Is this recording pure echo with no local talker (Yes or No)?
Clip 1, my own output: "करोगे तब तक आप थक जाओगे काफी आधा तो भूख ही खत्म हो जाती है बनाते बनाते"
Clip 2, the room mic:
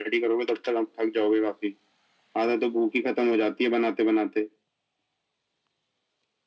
Yes